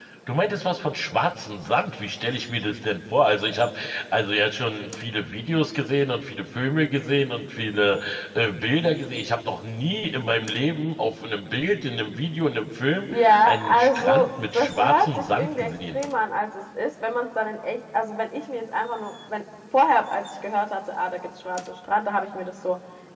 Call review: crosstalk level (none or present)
present